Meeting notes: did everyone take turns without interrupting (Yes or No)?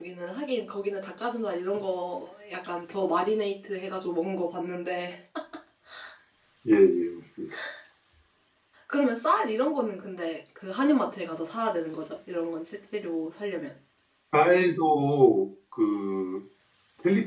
Yes